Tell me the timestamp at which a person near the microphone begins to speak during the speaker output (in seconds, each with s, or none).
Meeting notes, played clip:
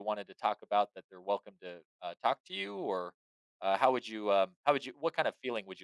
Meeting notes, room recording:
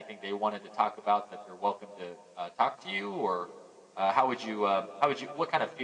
none